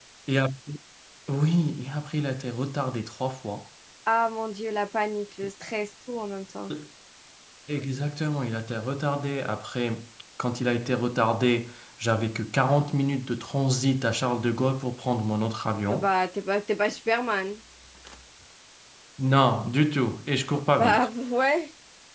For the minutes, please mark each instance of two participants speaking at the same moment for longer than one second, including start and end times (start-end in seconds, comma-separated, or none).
none